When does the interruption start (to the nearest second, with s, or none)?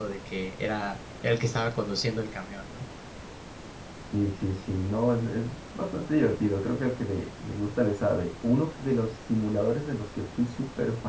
none